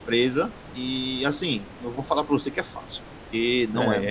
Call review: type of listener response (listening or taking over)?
listening